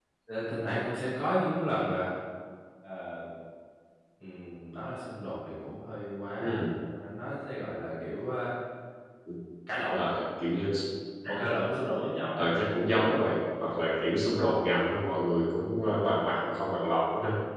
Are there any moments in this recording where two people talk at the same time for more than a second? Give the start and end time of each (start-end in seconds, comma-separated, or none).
none